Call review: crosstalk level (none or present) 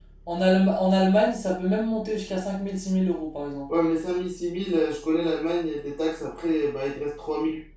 none